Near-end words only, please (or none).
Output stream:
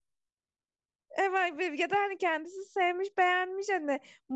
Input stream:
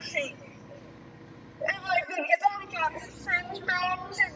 none